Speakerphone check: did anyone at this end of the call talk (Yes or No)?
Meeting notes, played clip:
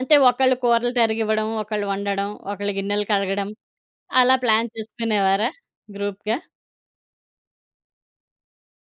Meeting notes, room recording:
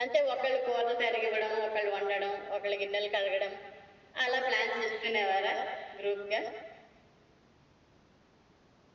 No